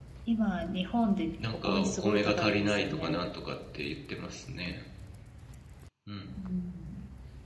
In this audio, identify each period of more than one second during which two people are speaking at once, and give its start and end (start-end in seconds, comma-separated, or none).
1.5-3.2